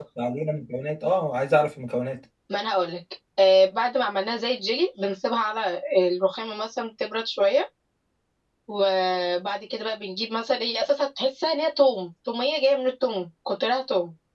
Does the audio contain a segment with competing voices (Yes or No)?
No